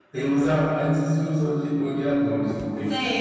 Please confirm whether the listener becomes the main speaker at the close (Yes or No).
Yes